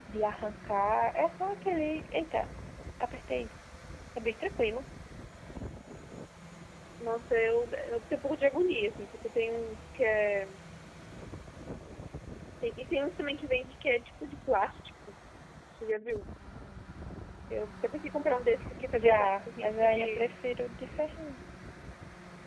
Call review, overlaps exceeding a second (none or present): present